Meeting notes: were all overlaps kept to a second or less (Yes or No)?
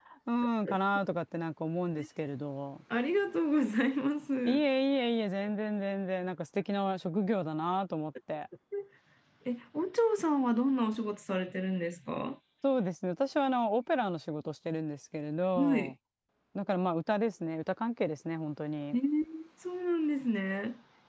Yes